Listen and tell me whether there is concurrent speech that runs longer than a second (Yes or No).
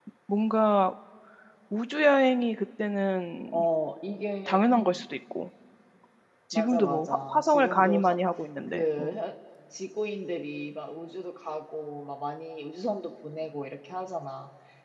Yes